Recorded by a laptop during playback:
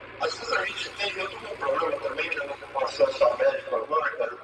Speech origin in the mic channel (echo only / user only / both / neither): echo only